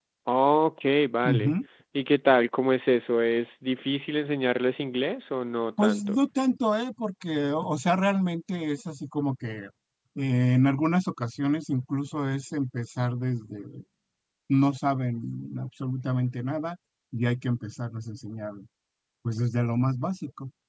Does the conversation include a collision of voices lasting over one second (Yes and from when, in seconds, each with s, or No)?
No